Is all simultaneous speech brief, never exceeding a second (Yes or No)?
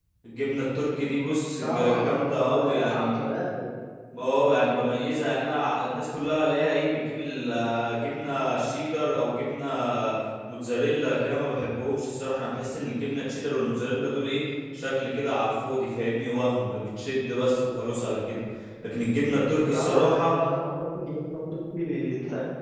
No